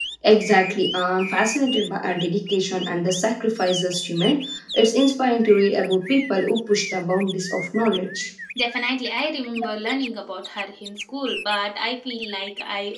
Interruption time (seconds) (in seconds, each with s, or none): none